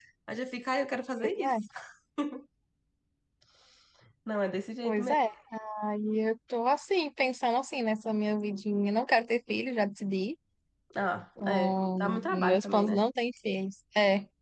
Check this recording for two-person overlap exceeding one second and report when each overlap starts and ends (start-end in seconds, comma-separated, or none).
11.4-13.0